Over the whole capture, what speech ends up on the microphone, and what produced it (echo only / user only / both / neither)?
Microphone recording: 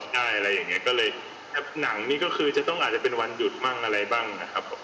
echo only